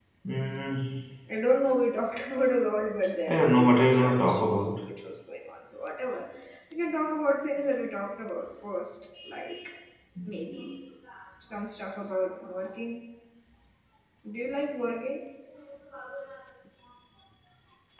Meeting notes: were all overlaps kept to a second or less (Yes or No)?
No